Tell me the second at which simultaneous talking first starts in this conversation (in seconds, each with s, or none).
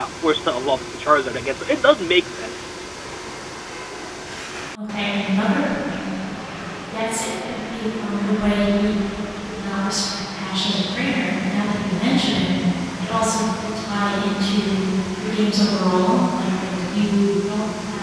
none